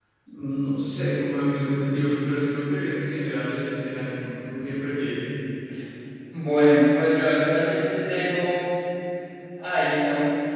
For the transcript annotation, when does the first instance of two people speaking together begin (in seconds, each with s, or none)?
none